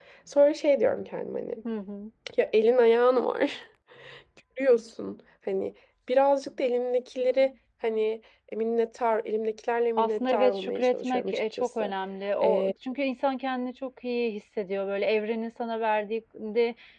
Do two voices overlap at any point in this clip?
Yes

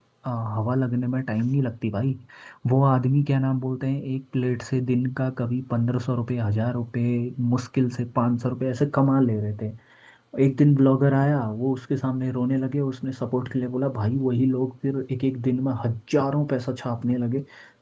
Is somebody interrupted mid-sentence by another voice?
No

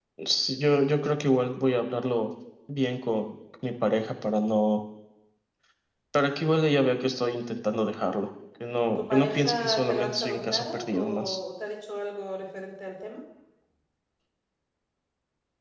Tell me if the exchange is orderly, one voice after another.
No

